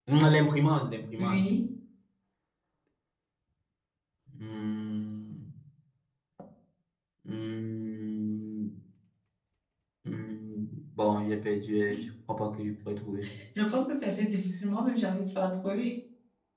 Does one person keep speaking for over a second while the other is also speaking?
No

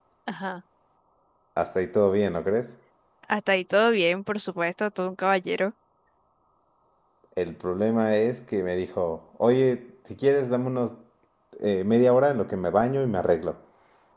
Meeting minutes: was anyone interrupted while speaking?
No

